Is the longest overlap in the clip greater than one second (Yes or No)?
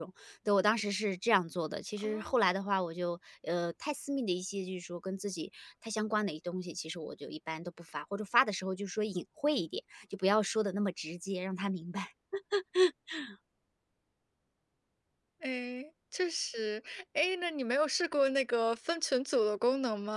No